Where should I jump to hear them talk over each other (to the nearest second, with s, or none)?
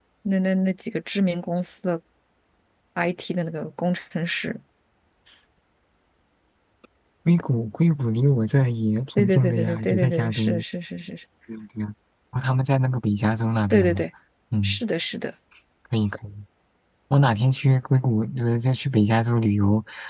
9 s